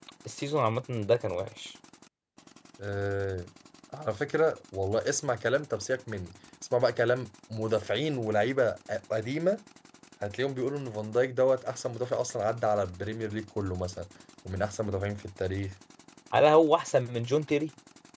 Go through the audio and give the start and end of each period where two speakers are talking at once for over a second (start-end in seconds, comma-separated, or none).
none